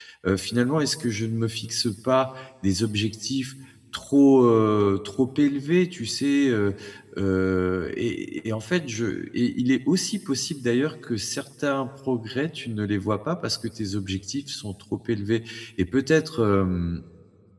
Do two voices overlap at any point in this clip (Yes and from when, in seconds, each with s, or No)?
No